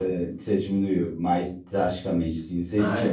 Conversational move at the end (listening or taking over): taking over